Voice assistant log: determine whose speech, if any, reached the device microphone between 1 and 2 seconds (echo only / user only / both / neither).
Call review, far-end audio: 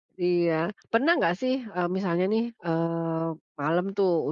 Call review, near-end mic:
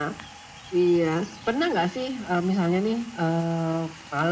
echo only